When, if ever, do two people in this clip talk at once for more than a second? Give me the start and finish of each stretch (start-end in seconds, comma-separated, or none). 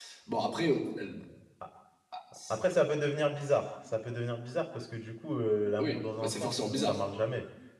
5.8-7.0